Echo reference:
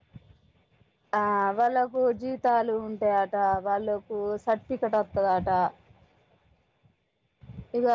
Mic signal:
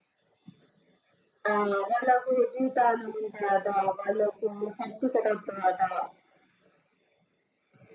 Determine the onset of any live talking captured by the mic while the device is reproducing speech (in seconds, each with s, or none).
none